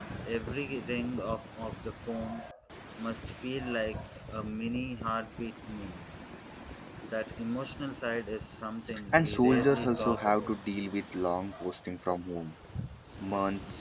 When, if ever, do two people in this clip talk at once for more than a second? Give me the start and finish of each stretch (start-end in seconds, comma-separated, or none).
9.1-10.5